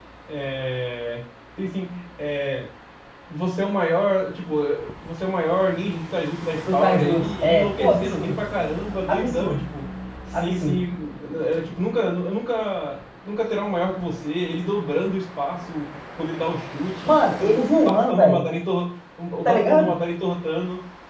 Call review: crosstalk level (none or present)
present